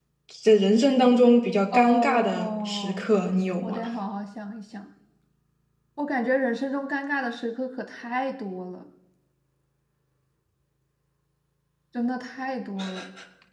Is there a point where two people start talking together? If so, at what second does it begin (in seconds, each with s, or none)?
1.7 s